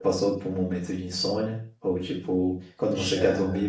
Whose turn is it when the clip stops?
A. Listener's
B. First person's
B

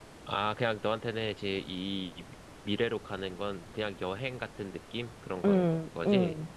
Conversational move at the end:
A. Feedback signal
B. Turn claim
B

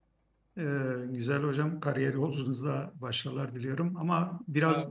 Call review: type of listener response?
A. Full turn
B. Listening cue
B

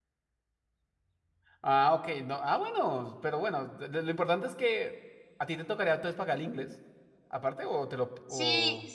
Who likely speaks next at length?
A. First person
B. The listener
B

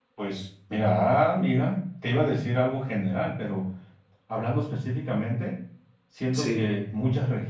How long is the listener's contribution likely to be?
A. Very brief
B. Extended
A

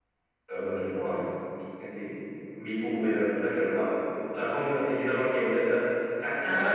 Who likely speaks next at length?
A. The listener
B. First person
A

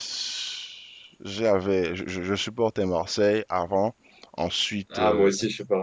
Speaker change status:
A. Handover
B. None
A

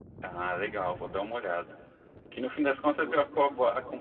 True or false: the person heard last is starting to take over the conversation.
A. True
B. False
B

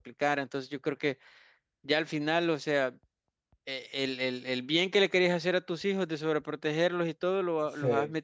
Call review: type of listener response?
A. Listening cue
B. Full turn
A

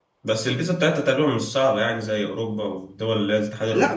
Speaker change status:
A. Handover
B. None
A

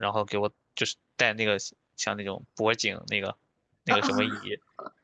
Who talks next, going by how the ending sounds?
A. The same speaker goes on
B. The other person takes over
A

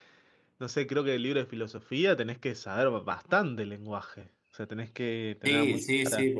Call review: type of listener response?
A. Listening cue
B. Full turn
B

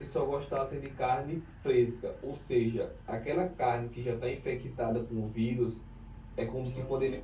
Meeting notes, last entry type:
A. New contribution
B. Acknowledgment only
B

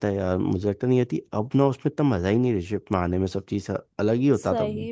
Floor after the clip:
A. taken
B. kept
A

